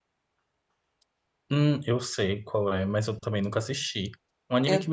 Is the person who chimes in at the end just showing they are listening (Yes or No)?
Yes